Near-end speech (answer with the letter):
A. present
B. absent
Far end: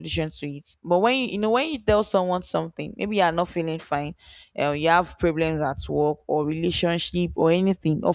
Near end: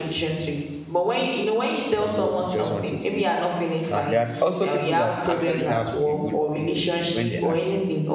A